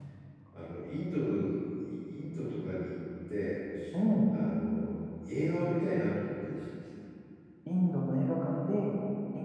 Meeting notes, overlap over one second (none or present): none